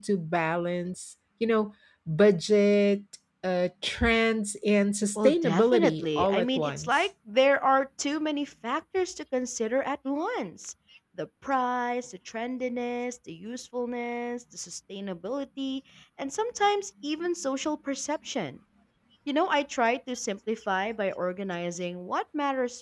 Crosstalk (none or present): present